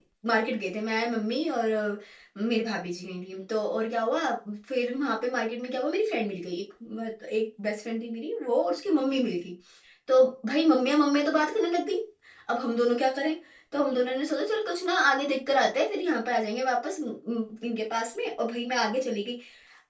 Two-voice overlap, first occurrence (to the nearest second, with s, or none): none